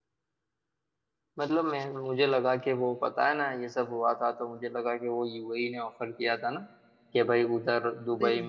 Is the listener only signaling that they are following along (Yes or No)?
Yes